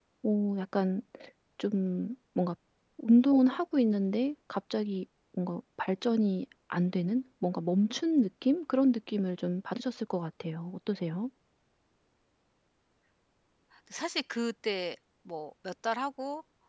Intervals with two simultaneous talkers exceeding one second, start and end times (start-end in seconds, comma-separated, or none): none